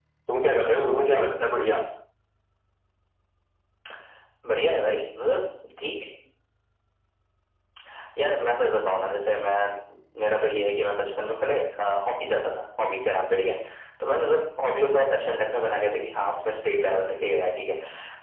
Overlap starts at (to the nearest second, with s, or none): none